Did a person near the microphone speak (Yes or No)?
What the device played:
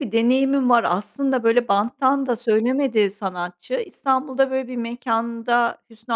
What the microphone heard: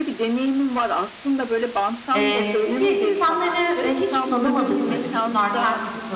Yes